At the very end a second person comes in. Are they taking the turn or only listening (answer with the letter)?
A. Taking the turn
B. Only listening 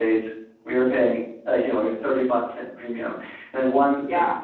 B